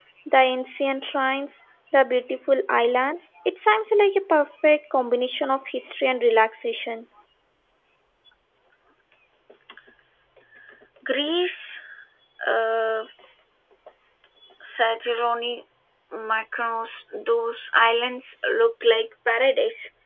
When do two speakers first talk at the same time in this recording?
none

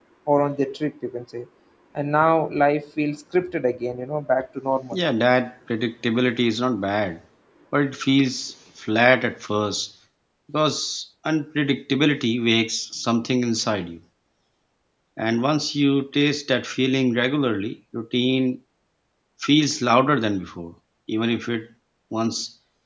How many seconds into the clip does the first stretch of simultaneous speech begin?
none

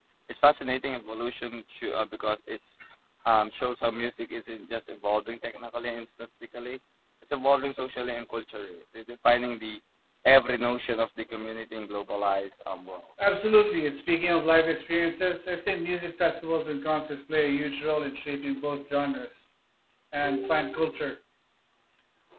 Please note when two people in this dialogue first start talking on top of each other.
none

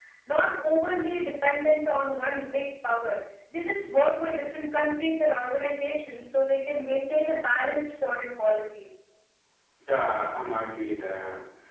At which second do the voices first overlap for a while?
none

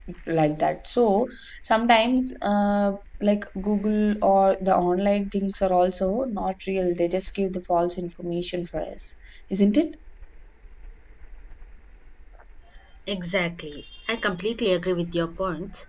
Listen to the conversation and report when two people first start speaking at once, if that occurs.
none

